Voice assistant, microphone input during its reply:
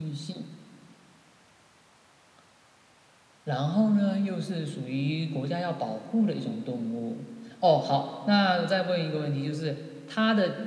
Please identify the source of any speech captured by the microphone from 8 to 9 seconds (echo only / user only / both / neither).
echo only